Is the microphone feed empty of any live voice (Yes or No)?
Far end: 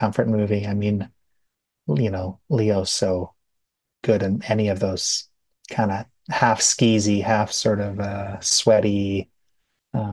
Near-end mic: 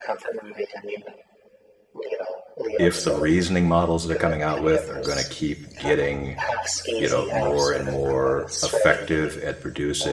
No